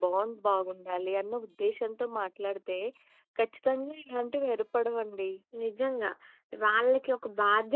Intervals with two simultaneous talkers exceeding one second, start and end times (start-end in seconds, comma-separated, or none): none